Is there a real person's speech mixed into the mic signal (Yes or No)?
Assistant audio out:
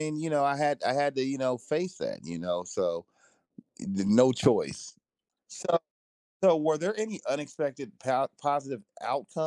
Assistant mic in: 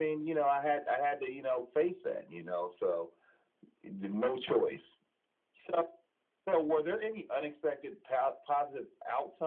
No